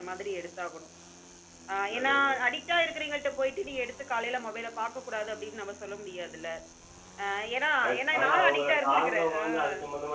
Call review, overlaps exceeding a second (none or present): present